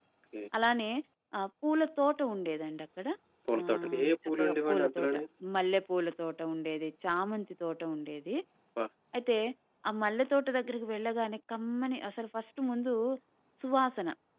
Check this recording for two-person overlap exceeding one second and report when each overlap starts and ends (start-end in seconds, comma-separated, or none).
3.6-5.1